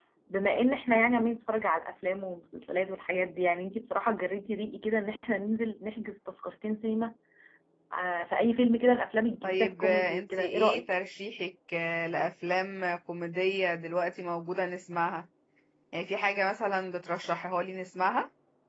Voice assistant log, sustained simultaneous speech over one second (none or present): present